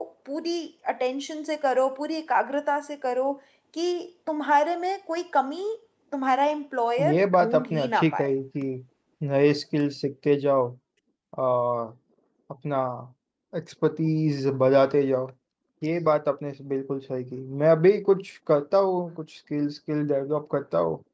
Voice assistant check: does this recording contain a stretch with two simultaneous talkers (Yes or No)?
Yes